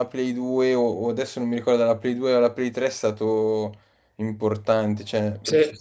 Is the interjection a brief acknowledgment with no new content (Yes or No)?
Yes